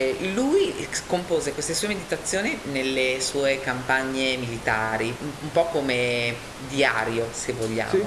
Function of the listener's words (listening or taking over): listening